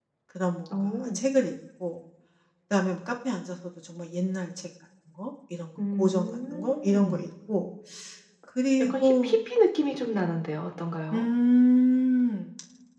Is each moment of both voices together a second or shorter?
No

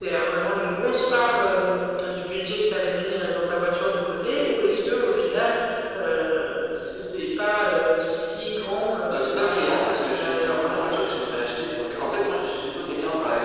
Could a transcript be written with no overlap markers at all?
No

